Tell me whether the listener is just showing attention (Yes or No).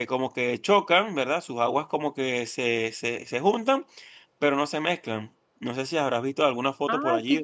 No